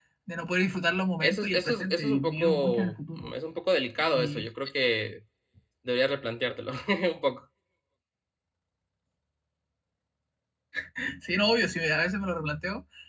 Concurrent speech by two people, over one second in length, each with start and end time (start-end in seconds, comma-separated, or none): 1.2-3.3